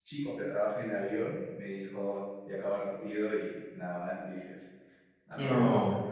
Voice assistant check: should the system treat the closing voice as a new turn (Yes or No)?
No